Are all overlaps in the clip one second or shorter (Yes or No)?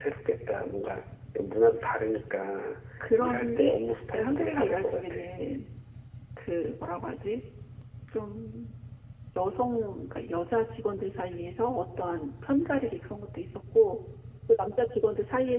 No